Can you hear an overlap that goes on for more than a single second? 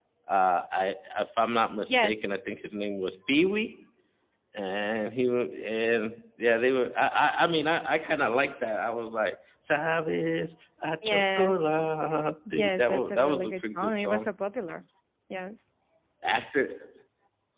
Yes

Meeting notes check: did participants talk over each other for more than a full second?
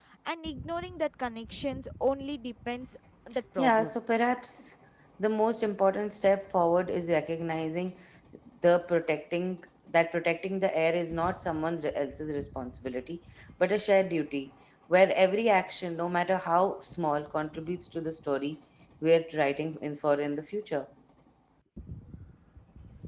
No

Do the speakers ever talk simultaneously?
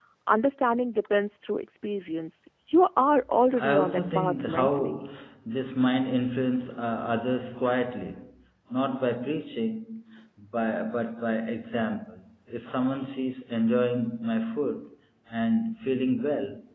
Yes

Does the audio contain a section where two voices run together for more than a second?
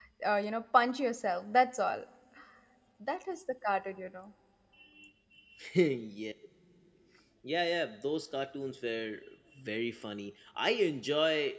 No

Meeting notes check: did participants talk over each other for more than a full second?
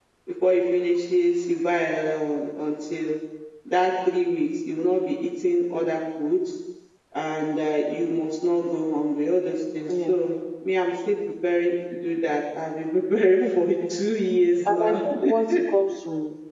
No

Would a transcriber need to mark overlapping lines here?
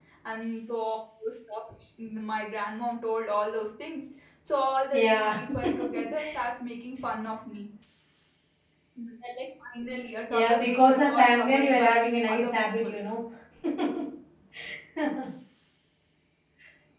Yes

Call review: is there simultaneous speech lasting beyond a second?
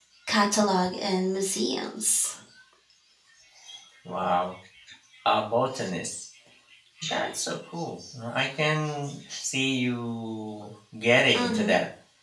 No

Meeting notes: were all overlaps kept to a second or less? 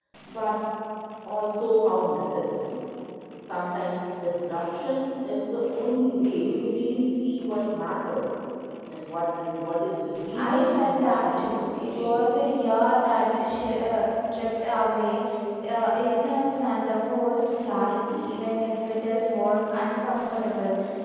No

